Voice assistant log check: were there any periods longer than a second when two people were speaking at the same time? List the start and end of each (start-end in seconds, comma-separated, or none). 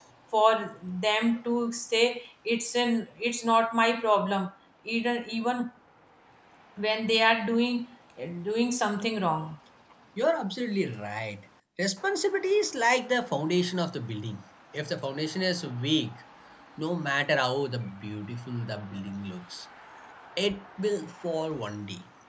none